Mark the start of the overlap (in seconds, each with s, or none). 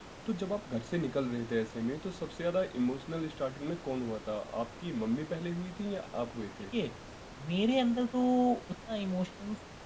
none